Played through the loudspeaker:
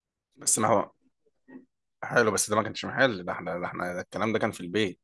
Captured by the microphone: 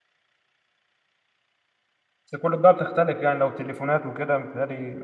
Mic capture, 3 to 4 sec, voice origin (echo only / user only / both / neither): user only